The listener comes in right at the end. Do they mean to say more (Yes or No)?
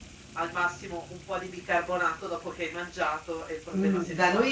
Yes